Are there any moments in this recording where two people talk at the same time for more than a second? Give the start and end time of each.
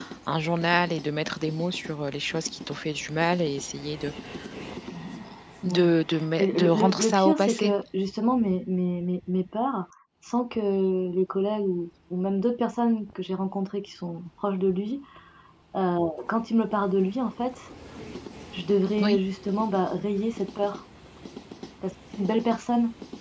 6.4-7.7

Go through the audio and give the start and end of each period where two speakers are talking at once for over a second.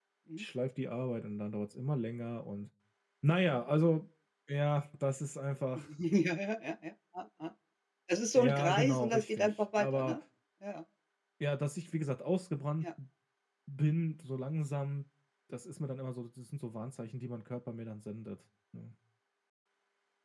8.3-10.2

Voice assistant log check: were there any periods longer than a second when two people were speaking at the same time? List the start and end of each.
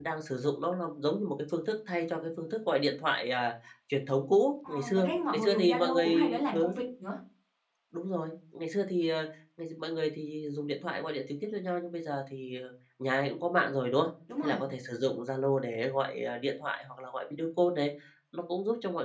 4.7-6.7

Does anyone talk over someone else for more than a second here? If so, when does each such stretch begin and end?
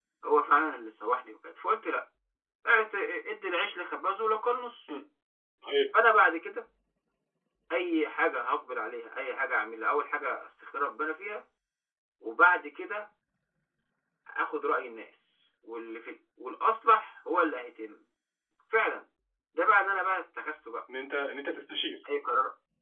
none

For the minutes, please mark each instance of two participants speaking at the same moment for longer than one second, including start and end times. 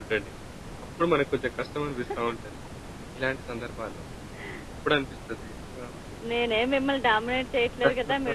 none

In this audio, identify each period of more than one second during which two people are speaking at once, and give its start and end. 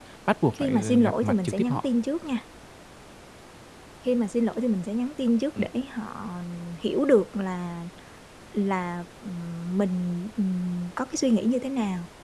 0.6-1.9

